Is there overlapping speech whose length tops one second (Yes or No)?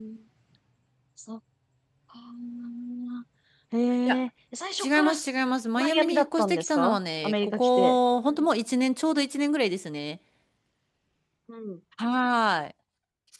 Yes